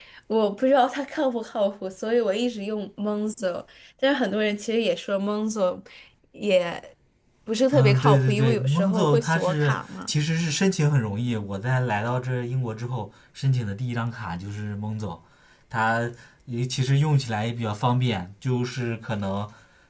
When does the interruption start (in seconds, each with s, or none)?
7.7 s